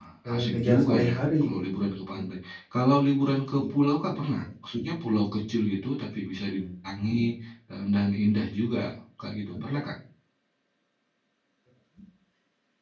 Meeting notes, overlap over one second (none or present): present